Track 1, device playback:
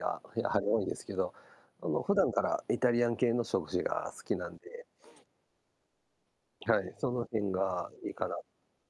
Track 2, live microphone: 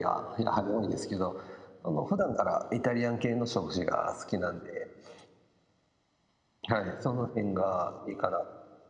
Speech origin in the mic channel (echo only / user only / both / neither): echo only